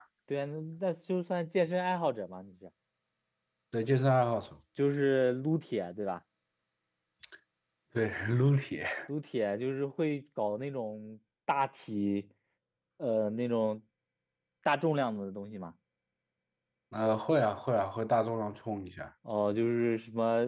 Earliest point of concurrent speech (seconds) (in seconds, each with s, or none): none